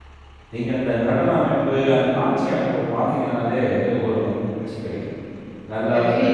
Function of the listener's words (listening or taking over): listening